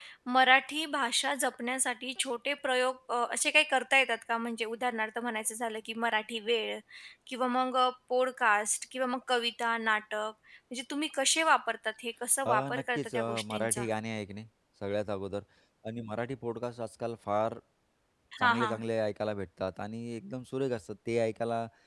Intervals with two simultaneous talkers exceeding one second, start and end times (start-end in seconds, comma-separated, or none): 12.5-13.8